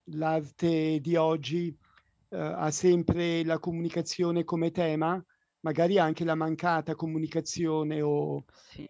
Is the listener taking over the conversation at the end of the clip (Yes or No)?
No